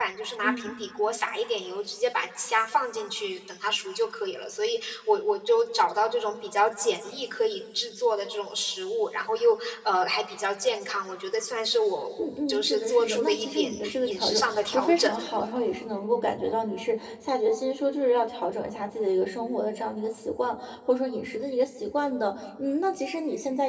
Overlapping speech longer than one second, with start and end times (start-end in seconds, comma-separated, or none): 12.2-15.1